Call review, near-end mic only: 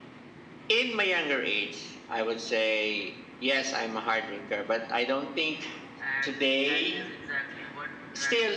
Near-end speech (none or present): present